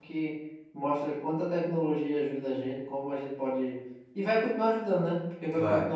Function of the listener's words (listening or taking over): listening